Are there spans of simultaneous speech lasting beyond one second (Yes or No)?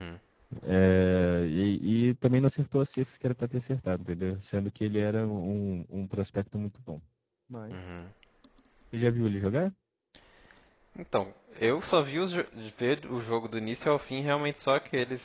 No